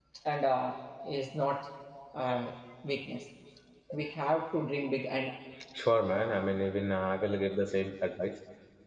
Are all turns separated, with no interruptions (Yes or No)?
Yes